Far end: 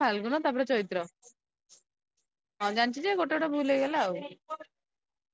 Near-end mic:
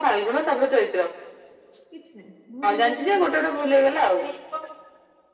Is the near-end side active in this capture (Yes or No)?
Yes